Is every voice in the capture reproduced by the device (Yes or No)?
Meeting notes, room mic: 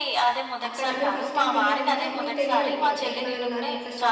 No